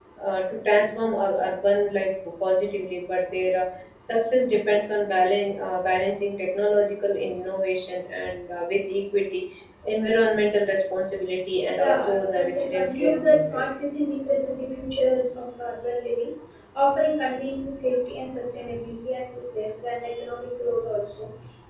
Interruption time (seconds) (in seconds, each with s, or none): 11.8 s